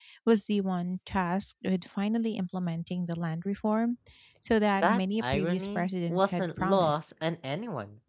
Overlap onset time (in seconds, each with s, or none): 4.8 s